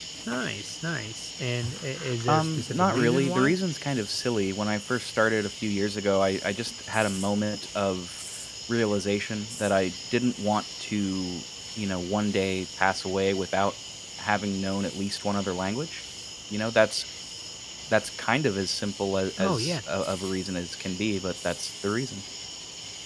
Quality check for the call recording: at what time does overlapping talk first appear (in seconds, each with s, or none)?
2.3 s